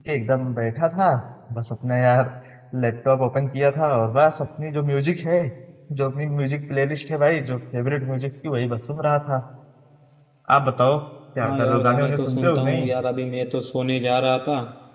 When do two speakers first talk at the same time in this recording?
11.4 s

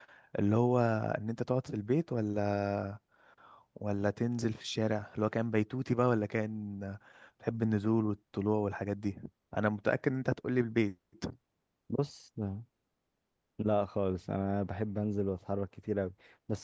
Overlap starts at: none

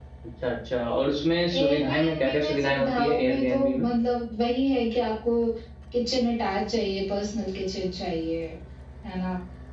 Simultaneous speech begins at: 1.5 s

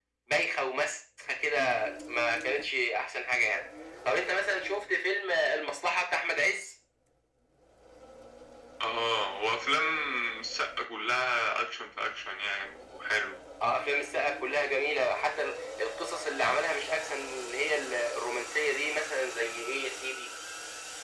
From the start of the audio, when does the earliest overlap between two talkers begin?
none

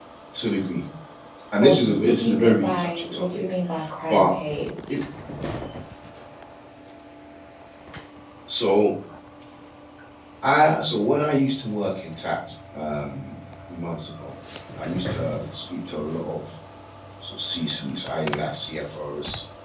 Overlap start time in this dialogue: 1.6 s

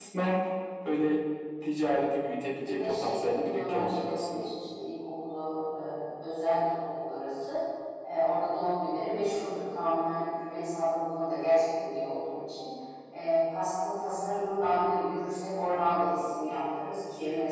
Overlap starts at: 2.5 s

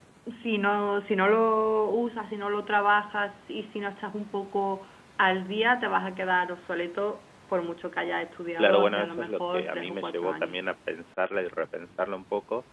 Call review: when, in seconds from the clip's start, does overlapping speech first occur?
8.6 s

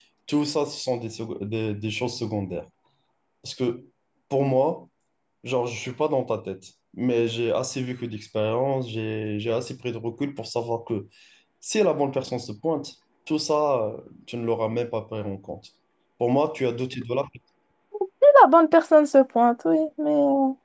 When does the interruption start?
none

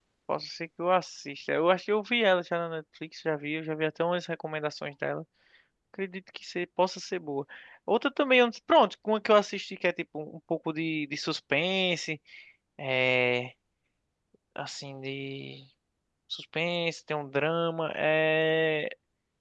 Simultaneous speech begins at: none

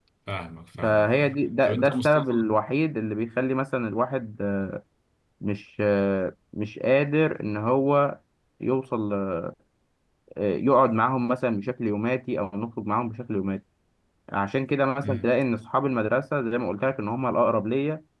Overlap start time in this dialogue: 0.8 s

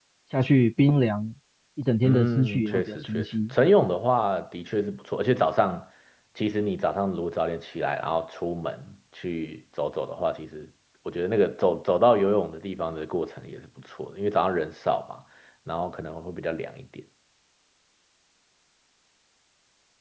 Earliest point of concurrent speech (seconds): 2.0 s

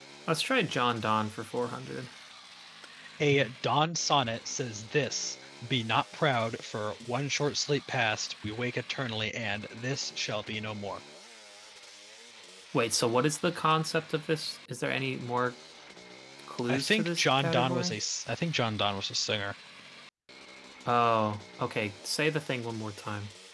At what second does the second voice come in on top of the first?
16.7 s

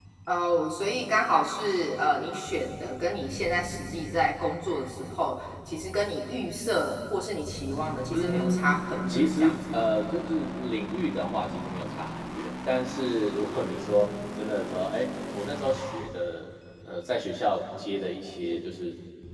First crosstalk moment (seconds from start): 8.1 s

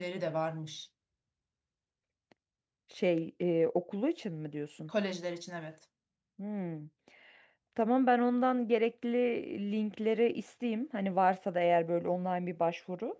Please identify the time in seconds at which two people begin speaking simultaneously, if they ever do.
none

